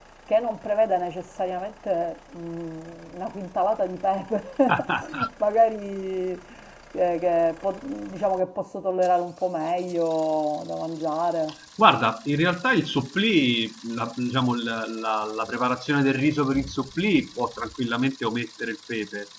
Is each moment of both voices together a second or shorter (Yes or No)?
Yes